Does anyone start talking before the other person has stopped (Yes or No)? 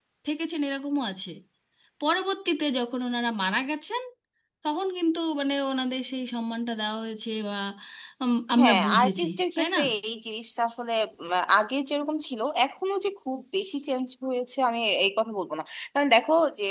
Yes